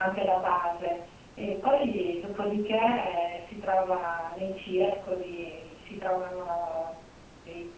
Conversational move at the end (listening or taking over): listening